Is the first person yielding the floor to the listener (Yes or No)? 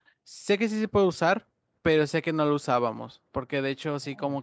No